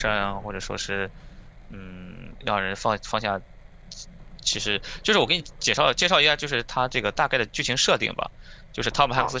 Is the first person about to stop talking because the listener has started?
Yes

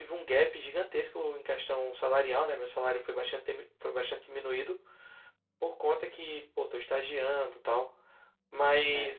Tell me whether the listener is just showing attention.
Yes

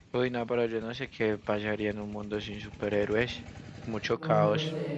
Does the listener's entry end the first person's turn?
Yes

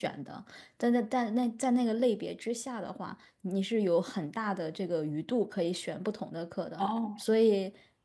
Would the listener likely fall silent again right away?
Yes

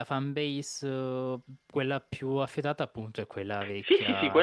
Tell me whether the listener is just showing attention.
No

